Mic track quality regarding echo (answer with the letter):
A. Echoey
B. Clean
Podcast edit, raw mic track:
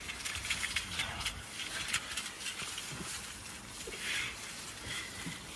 B